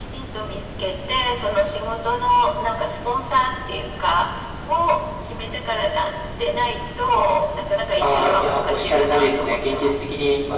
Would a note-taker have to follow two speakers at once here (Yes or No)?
Yes